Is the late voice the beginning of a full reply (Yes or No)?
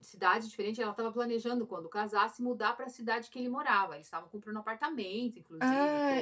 Yes